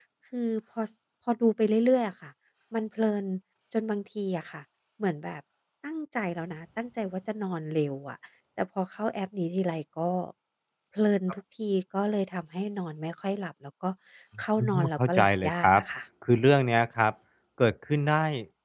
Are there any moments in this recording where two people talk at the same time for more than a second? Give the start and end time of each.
14.6-15.8

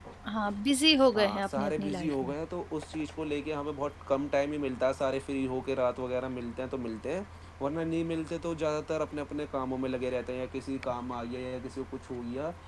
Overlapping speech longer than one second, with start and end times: 1.2-2.4

